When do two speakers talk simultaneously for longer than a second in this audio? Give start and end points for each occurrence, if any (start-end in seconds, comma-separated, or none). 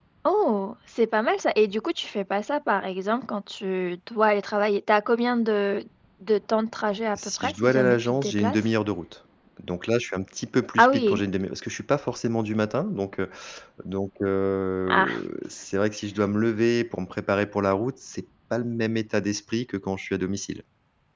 7.2-8.6